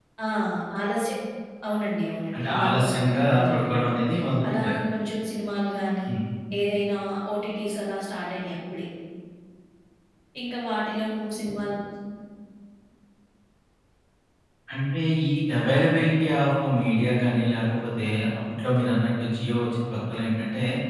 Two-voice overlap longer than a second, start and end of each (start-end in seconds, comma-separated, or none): 2.3-3.9